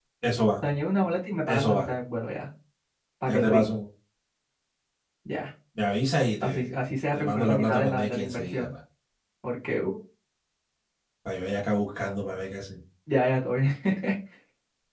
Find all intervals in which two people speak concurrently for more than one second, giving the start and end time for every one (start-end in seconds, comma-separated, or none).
7.1-8.7